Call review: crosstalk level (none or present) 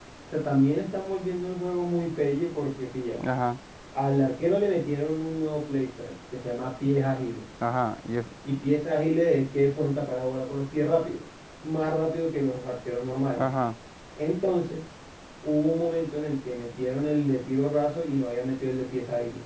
none